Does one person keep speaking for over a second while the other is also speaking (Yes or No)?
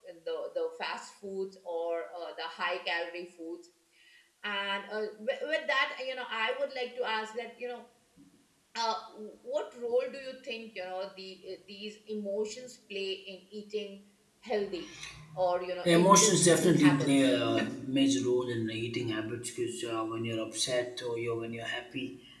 Yes